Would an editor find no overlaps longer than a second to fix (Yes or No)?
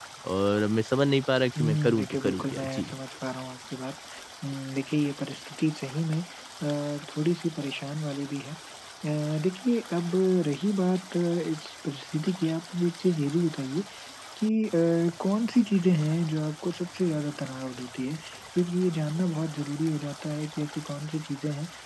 No